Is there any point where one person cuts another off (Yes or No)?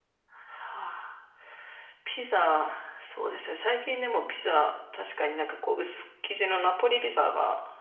No